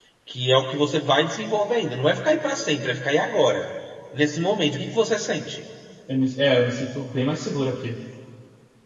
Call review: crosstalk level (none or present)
none